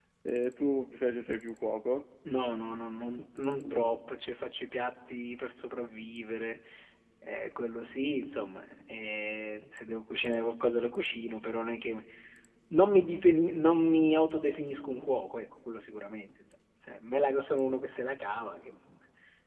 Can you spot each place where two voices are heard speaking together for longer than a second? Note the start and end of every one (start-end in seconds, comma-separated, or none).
none